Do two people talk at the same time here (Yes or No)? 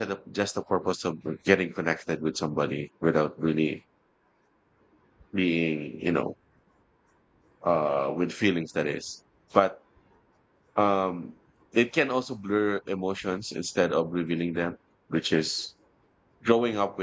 No